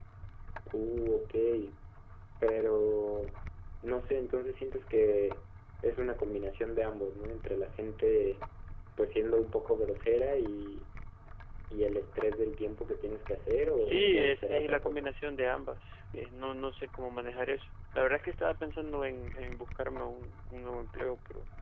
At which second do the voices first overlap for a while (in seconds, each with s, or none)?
13.8 s